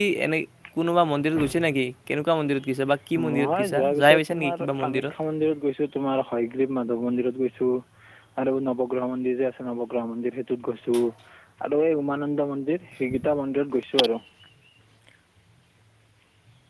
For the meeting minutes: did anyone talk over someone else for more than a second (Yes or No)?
Yes